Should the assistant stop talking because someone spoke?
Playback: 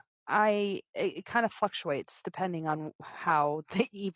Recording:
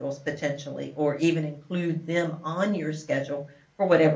Yes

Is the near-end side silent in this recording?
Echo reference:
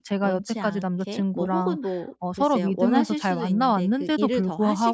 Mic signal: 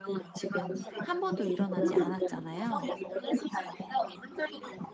No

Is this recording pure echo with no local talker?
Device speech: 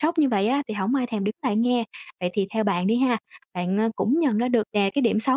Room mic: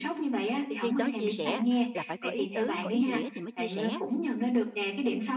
No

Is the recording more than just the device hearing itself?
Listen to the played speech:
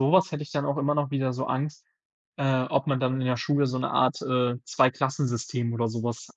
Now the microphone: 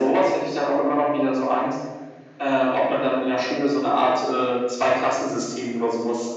No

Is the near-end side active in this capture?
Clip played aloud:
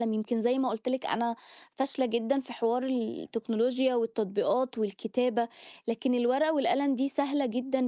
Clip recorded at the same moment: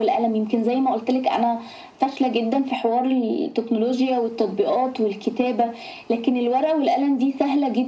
No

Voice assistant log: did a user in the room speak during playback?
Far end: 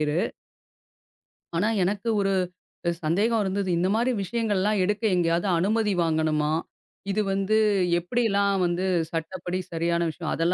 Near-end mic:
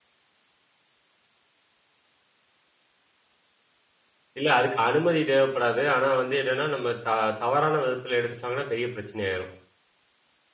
Yes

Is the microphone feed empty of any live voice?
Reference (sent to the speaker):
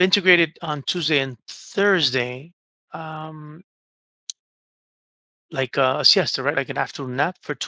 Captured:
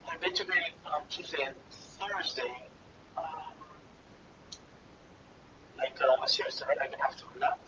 Yes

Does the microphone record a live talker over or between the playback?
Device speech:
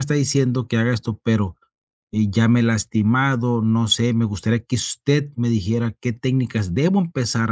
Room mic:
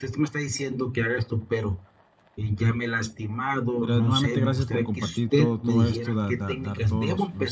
Yes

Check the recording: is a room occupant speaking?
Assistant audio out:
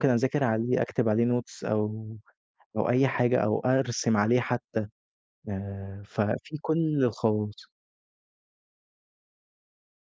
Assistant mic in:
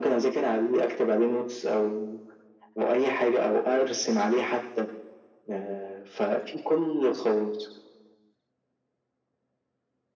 No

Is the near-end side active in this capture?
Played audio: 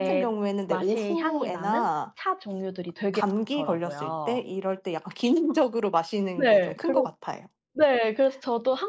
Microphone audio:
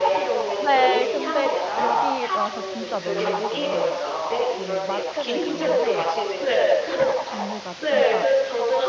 Yes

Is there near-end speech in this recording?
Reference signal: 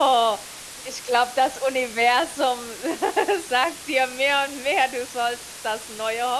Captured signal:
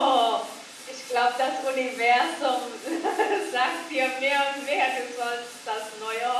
No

